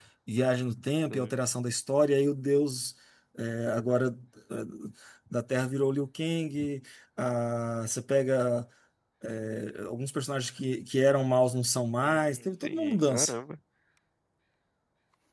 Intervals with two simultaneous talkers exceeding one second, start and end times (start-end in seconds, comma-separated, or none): 12.0-13.3